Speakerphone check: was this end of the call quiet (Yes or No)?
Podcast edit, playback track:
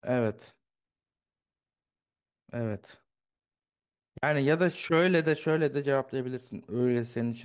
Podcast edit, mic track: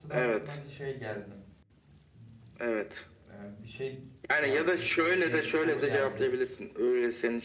No